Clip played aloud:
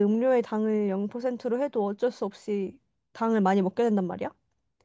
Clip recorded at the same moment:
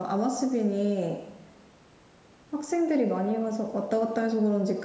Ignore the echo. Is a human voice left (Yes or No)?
Yes